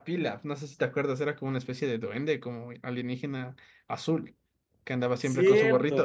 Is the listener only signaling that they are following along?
No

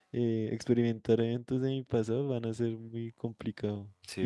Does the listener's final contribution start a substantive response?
No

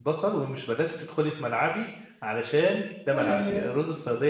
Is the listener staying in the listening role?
Yes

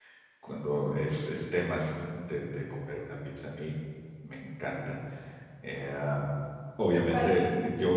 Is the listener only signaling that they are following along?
Yes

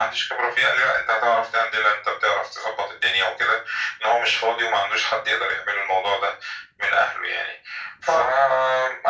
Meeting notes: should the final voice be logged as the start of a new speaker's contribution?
No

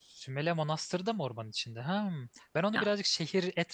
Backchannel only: Yes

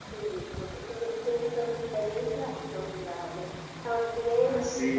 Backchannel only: Yes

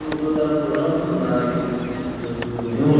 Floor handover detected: Yes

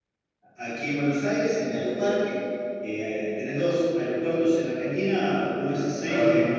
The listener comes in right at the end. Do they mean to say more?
No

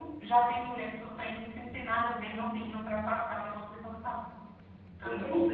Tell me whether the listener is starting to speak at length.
Yes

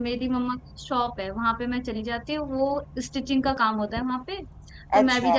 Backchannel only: Yes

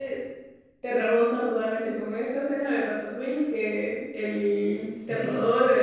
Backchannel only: Yes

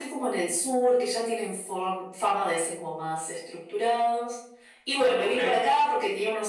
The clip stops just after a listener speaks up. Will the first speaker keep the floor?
Yes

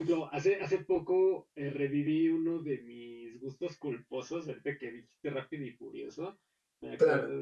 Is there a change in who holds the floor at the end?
No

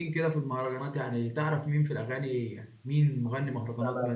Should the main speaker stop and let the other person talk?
Yes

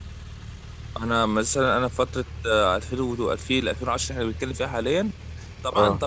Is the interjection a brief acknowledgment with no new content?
Yes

